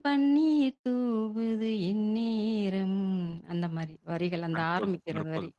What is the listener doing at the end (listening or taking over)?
taking over